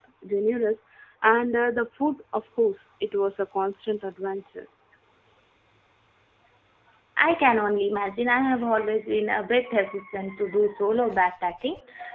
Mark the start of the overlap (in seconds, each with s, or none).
none